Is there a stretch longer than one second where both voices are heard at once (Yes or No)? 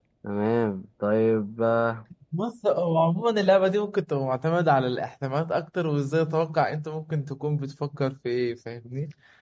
No